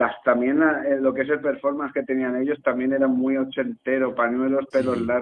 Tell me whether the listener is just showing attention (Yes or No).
Yes